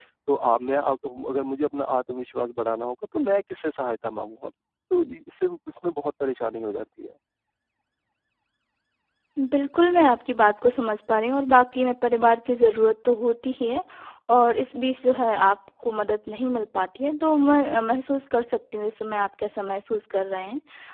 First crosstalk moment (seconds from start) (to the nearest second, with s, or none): none